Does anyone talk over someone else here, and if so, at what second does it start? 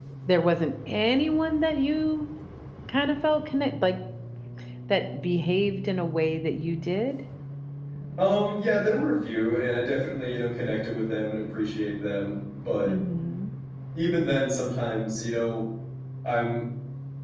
none

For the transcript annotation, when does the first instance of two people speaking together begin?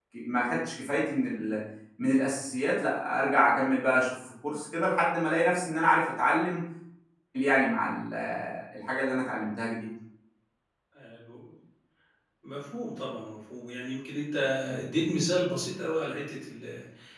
none

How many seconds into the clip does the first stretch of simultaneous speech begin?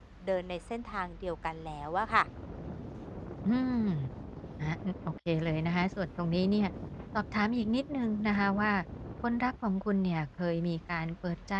none

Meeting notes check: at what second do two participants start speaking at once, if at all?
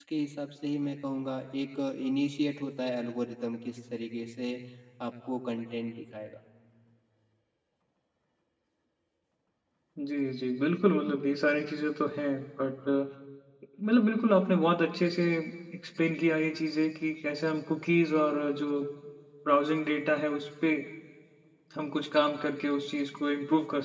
none

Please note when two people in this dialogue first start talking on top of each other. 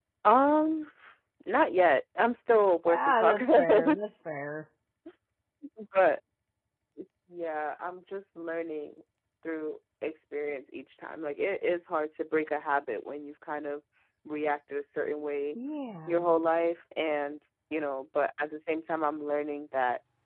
3 s

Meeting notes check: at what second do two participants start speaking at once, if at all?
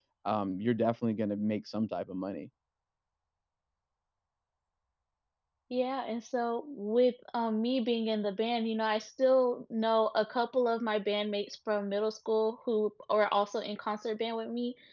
none

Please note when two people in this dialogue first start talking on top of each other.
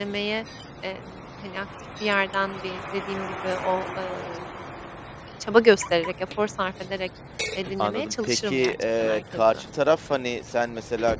8 s

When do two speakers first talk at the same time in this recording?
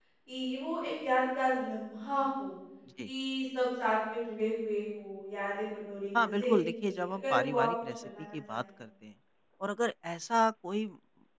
6 s

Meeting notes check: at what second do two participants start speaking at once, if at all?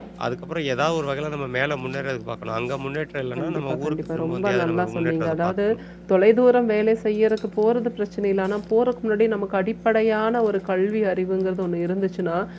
3 s

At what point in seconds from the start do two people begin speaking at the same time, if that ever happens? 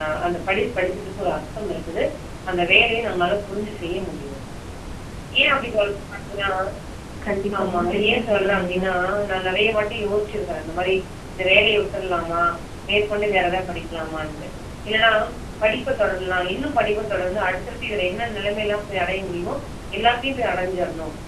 8 s

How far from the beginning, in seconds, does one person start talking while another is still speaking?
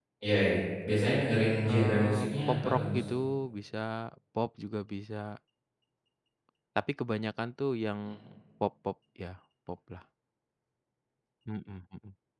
2 s

